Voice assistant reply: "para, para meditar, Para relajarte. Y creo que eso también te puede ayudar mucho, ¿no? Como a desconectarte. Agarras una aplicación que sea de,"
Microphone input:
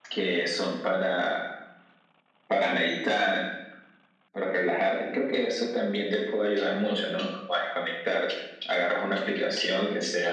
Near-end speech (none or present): none